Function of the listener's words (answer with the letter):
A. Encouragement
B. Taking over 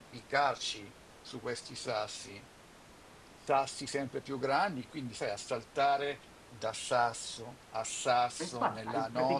B